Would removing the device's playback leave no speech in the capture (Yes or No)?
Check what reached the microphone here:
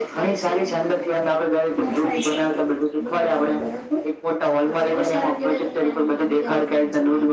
Yes